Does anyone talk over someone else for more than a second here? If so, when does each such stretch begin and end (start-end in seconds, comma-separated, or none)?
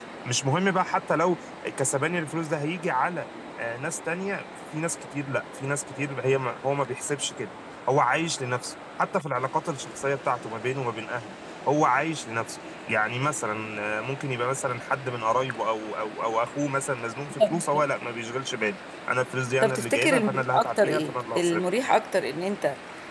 19.6-21.6